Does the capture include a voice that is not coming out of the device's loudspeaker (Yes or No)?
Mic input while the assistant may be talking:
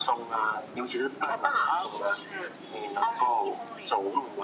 No